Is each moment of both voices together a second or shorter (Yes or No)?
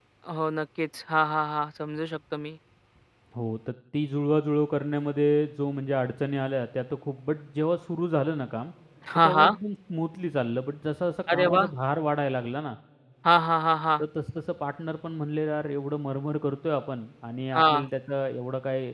Yes